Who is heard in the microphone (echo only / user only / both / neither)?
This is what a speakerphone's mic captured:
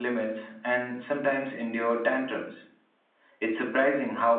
user only